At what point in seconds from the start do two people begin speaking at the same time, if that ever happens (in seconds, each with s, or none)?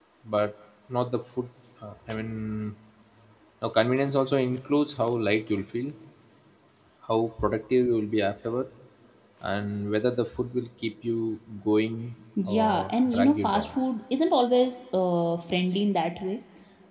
12.4 s